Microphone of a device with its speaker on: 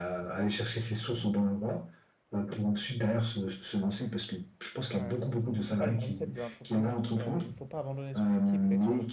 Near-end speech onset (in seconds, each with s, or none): 4.9 s